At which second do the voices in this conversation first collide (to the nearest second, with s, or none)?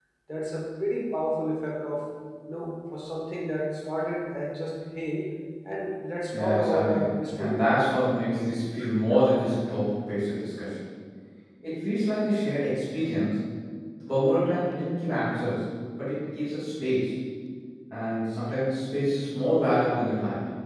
6 s